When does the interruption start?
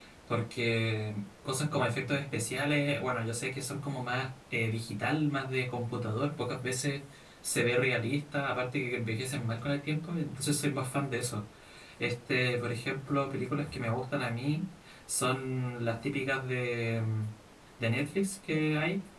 none

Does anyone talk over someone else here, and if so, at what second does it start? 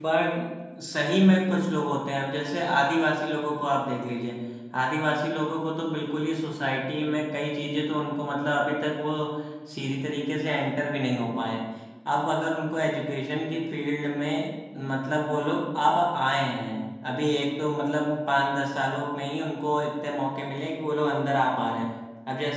none

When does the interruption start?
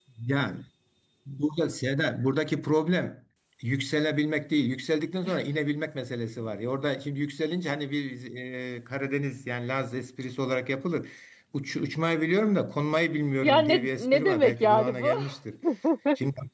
13 s

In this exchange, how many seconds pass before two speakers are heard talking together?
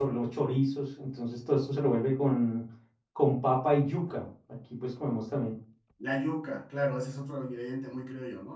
none

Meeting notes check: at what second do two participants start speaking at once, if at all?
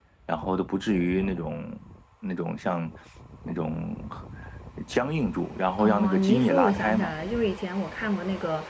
6 s

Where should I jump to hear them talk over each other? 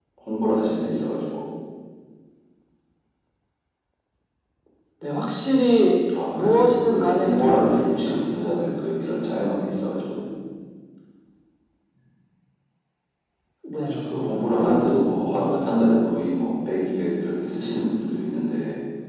6 s

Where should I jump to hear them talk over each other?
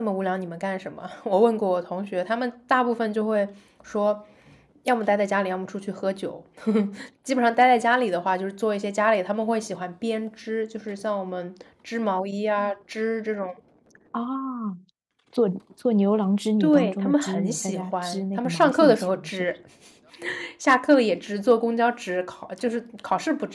17 s

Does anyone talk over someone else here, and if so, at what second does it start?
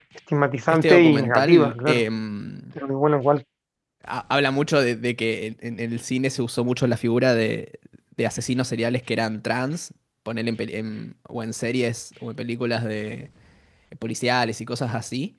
1 s

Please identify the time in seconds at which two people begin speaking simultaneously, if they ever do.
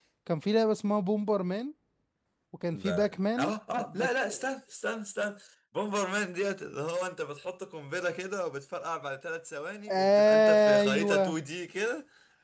3 s

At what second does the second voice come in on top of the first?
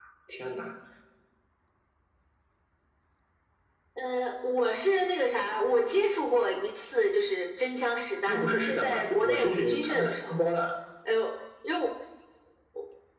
8 s

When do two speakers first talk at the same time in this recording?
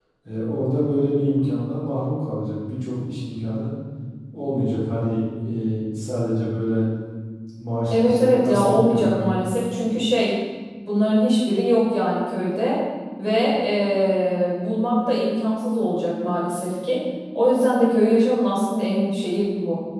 8 s

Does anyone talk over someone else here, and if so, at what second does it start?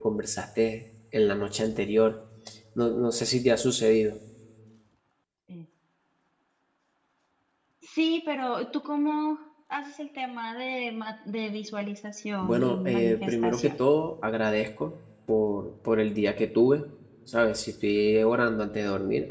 12 s

